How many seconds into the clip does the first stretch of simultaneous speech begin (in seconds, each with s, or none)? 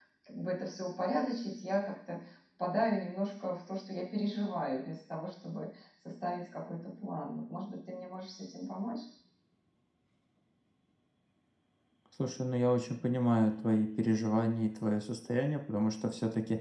none